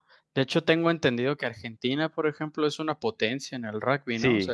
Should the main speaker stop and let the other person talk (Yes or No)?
Yes